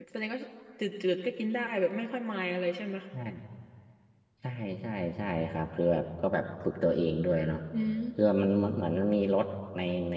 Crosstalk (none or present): none